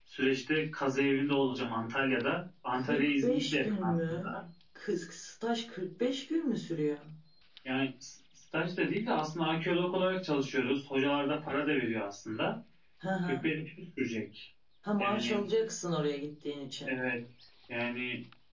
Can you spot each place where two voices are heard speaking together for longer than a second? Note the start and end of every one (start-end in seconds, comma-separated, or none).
2.7-4.4